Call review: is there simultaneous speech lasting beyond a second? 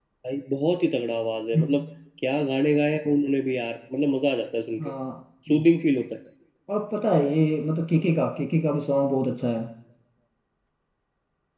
No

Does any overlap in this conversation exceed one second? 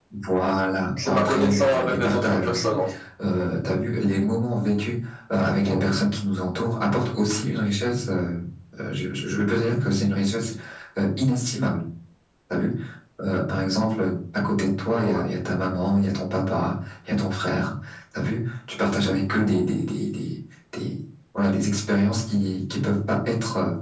Yes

